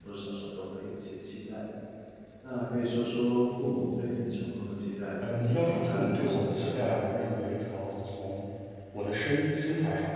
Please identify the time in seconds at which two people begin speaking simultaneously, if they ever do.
5.2 s

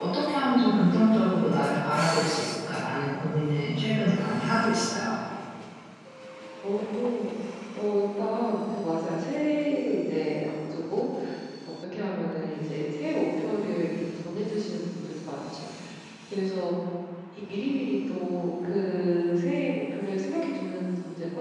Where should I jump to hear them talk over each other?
none

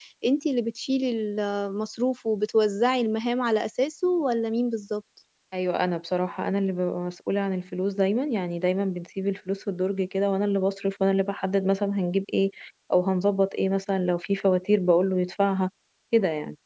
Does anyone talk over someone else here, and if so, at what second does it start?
none

